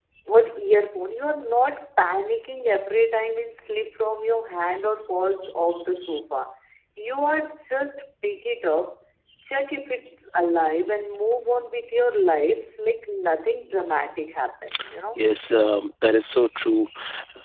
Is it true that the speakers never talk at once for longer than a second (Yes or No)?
Yes